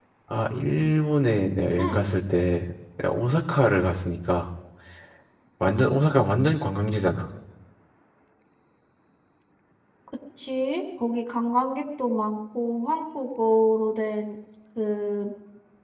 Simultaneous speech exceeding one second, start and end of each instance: none

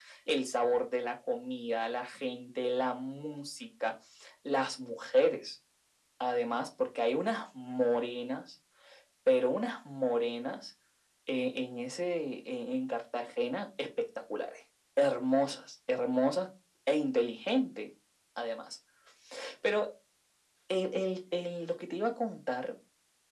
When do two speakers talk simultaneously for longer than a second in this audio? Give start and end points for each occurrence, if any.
none

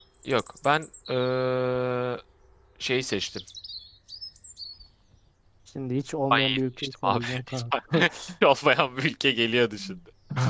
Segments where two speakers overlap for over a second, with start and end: 6.3-7.6

